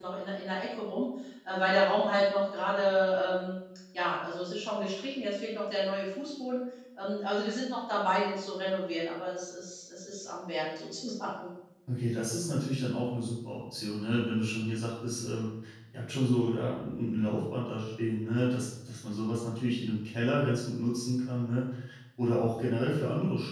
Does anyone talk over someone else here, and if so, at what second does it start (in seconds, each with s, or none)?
none